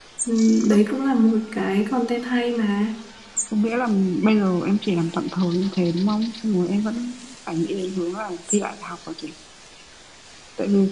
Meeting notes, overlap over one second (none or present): none